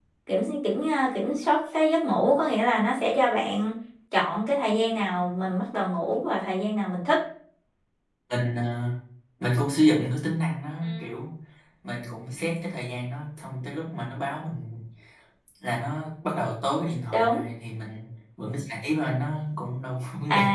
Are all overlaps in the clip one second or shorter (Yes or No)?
Yes